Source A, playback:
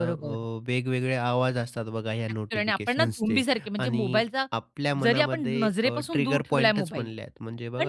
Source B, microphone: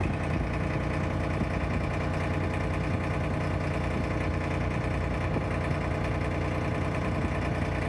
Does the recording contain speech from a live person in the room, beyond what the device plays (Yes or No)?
No